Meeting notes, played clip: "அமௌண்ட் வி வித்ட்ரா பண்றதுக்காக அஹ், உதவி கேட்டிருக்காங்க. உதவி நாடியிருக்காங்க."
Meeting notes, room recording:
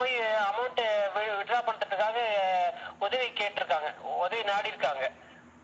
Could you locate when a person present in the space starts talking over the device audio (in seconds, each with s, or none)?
none